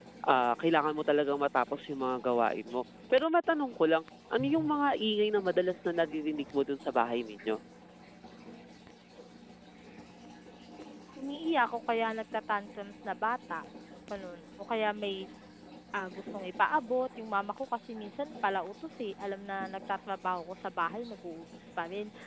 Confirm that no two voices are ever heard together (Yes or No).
Yes